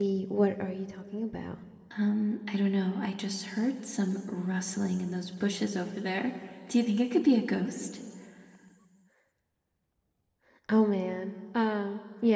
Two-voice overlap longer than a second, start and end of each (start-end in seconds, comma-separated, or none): none